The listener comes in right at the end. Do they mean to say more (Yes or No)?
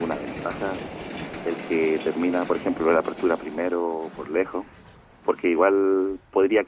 No